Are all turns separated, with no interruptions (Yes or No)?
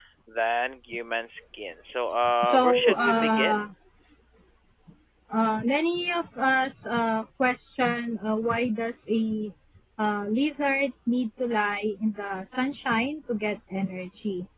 No